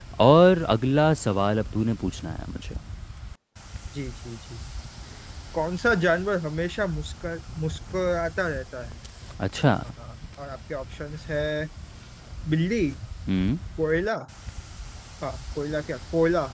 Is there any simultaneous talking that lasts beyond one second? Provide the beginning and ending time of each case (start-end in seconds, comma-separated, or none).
none